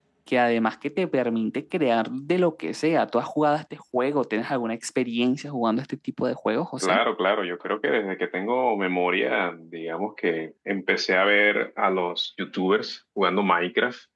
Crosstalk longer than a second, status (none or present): none